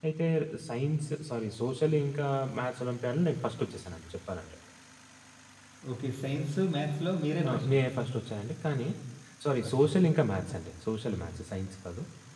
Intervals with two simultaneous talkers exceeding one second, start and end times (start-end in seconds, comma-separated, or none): none